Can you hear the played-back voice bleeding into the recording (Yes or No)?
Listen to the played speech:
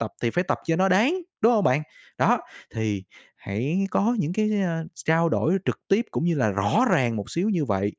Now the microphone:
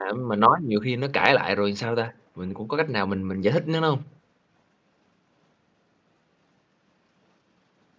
No